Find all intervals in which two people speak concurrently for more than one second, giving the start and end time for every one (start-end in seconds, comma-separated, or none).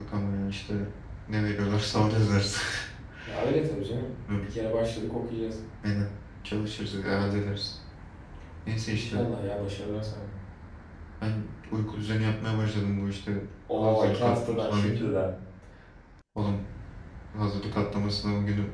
13.8-15.1